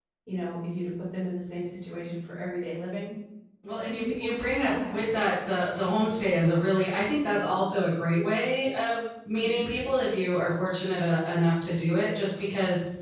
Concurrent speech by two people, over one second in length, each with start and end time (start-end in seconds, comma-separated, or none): 3.9-5.2